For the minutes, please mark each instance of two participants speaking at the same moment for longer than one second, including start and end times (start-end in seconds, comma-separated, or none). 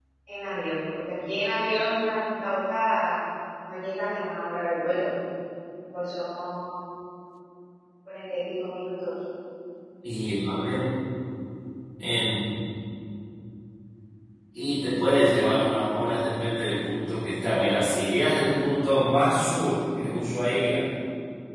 none